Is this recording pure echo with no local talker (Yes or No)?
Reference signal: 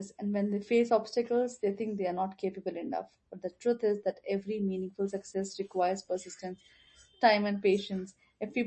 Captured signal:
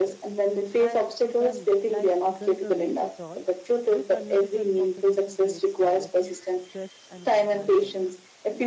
No